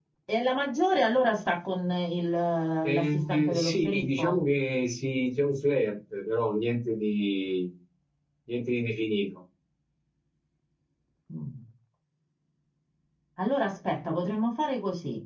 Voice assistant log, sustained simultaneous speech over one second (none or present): present